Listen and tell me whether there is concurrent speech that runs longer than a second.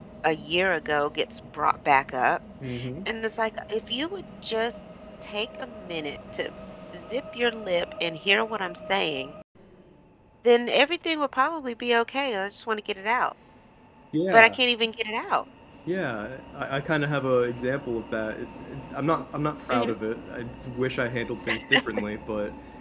No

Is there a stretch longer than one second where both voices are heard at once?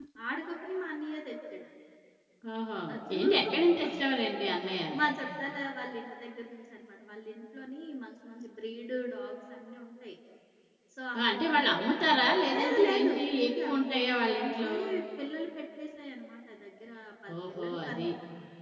Yes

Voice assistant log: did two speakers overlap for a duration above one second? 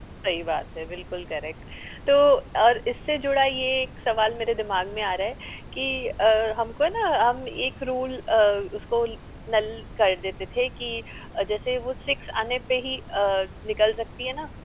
No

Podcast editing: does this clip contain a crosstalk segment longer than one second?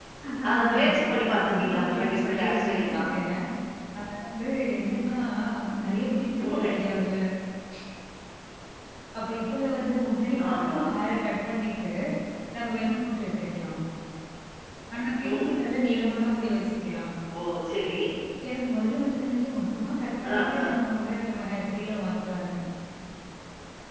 Yes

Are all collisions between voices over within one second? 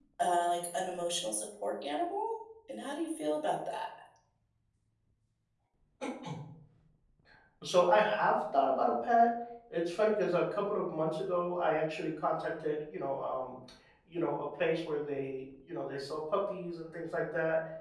Yes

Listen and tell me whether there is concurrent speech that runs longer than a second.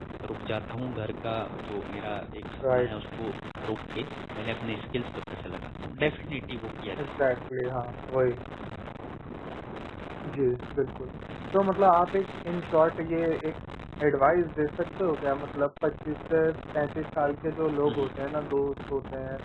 No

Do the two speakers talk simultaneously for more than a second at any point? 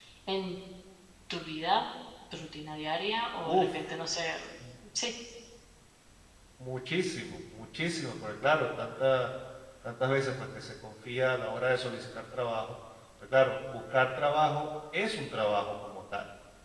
No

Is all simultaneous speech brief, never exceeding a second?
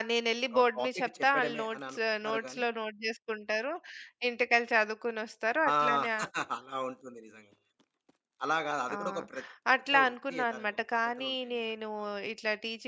No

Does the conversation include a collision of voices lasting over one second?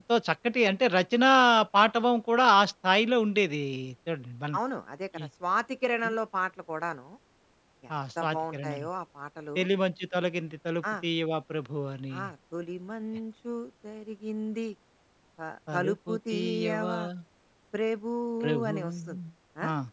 Yes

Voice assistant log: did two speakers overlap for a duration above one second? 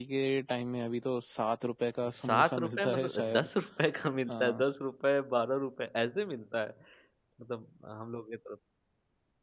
Yes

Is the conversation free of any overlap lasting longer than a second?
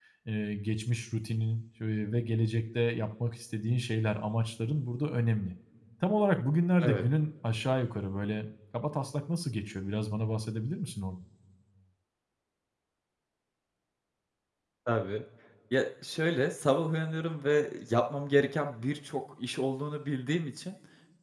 Yes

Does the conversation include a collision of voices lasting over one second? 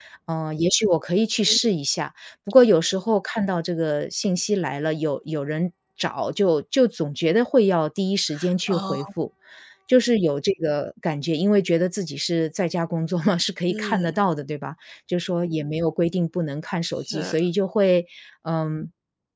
No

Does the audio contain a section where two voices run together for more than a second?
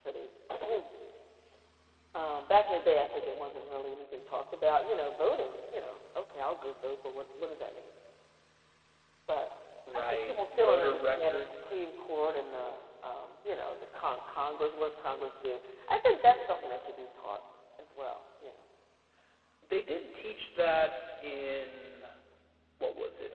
Yes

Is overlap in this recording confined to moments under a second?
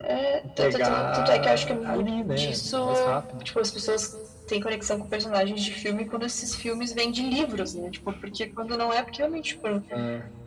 No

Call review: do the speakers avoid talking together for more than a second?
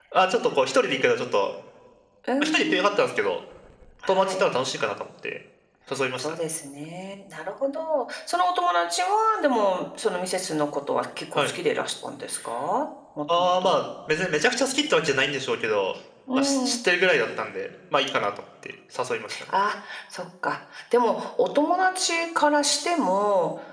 Yes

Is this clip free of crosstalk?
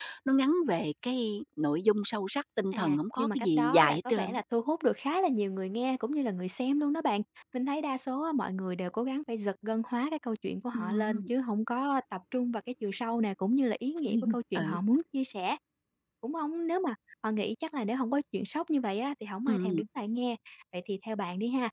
No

